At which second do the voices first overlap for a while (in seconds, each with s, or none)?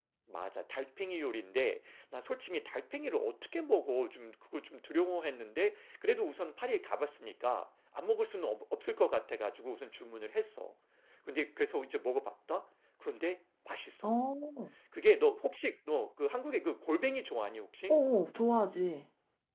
none